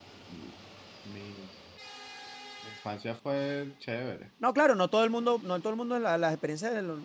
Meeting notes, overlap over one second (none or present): none